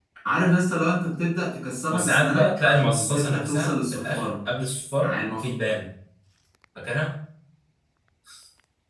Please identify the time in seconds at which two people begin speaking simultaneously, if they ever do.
2 s

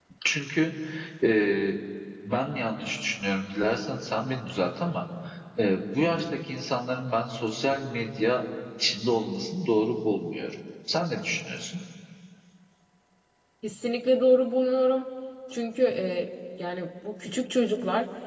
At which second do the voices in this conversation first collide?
none

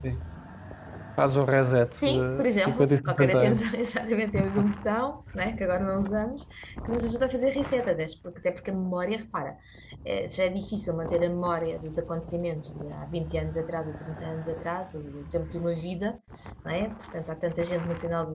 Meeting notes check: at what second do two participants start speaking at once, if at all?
2 s

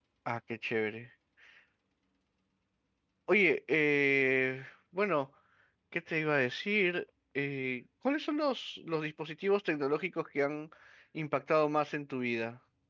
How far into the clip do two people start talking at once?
none

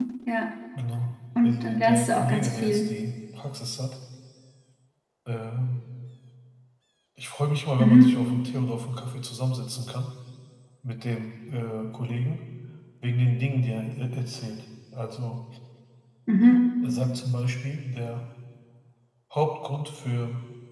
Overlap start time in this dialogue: 1 s

